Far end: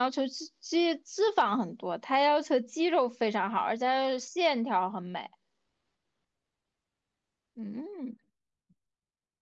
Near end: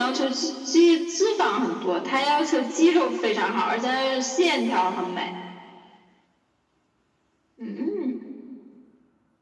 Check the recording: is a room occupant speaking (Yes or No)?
No